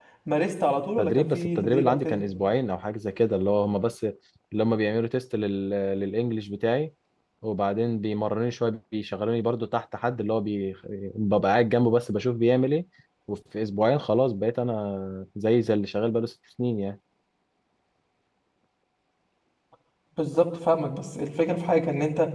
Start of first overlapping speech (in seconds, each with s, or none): 1.0 s